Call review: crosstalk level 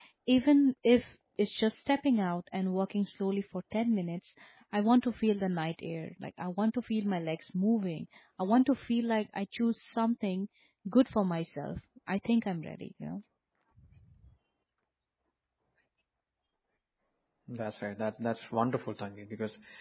none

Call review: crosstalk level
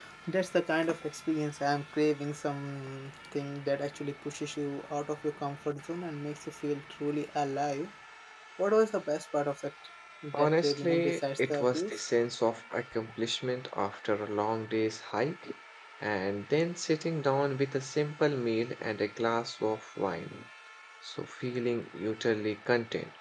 present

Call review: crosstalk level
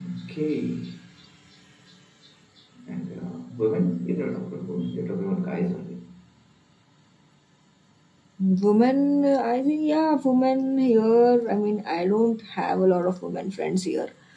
none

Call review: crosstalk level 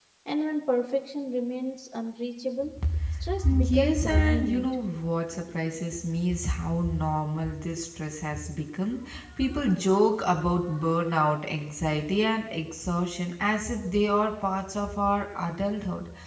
present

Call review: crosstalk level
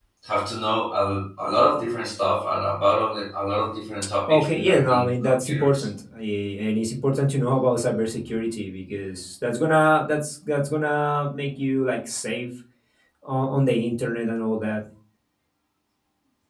present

